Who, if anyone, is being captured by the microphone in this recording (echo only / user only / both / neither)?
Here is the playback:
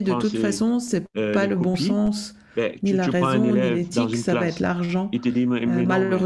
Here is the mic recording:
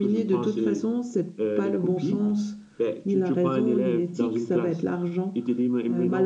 echo only